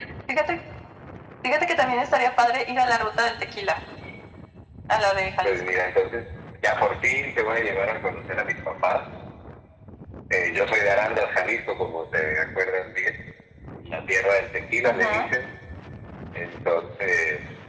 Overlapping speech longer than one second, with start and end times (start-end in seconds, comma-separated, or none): none